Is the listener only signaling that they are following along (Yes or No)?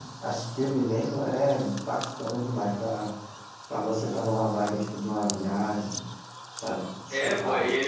No